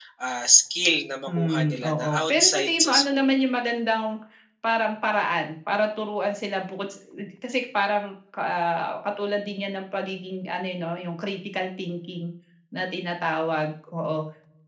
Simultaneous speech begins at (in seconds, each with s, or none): 1.3 s